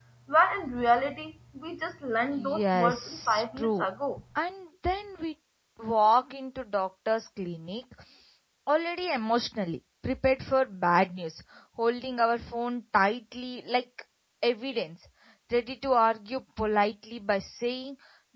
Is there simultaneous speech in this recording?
Yes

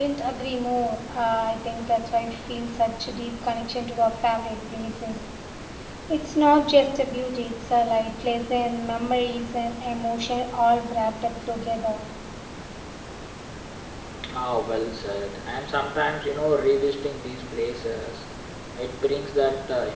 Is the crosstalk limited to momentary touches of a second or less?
Yes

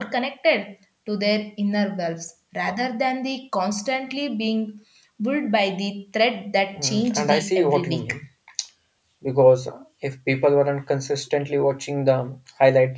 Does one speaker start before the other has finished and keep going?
Yes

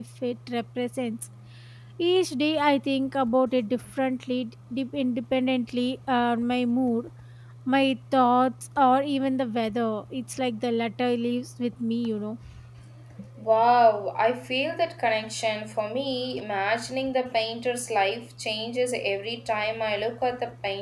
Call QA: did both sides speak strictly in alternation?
Yes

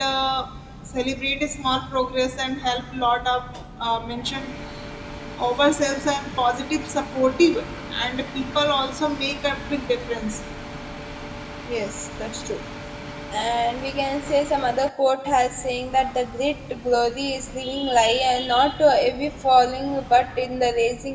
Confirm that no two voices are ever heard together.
Yes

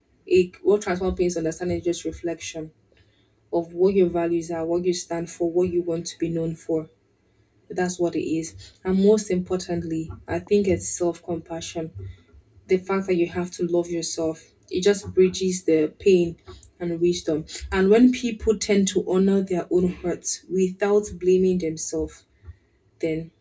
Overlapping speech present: No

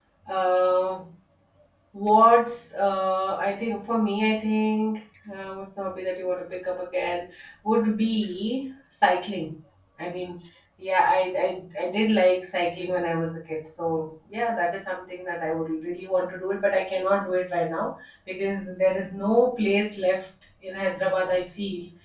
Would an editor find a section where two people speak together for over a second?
No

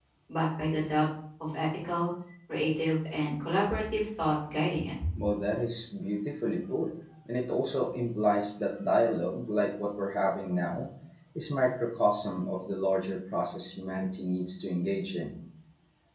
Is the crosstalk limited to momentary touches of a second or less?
Yes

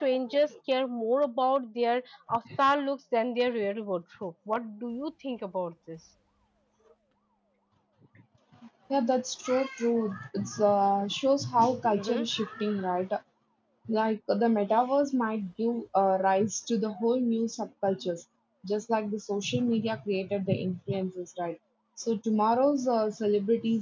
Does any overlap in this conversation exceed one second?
No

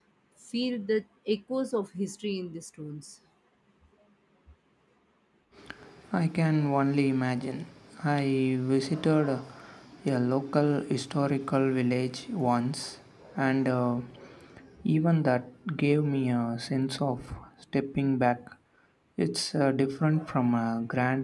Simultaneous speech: No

